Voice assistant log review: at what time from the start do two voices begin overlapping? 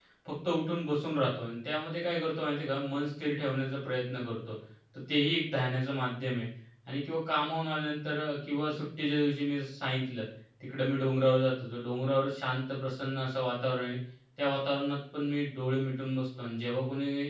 none

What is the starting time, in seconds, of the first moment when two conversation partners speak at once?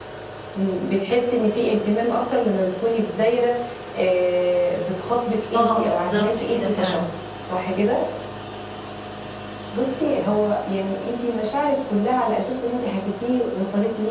5.5 s

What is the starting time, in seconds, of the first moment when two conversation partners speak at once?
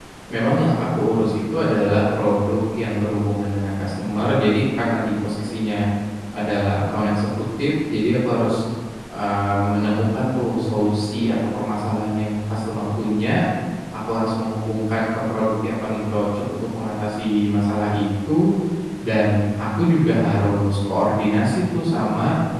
none

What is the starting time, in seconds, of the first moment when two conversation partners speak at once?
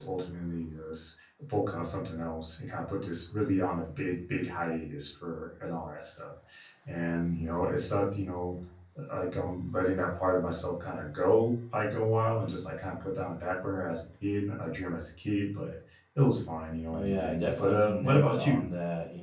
16.9 s

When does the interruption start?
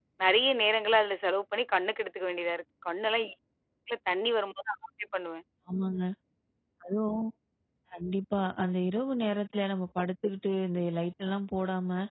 none

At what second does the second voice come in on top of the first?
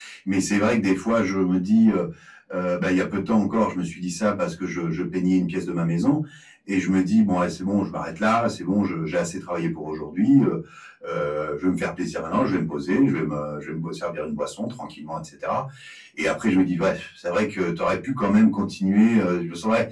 none

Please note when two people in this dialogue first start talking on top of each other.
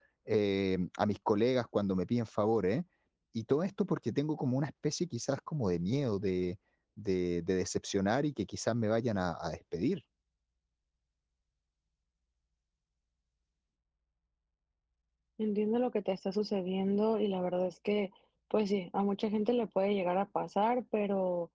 none

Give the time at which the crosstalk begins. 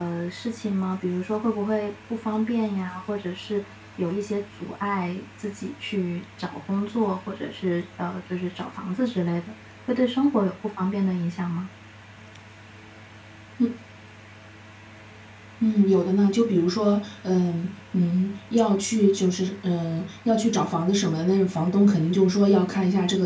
none

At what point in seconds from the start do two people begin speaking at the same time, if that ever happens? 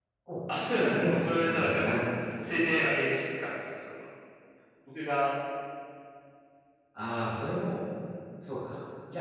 0.7 s

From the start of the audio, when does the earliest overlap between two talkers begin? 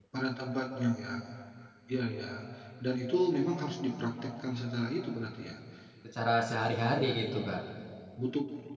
none

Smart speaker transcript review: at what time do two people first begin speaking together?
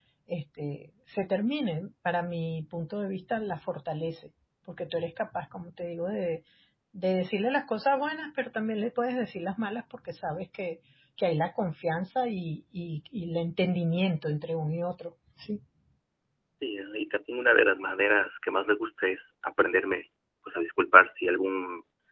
none

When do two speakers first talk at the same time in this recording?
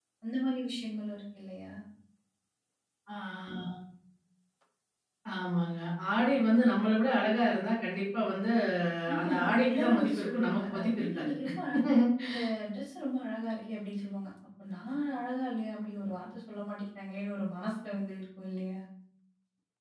9.2 s

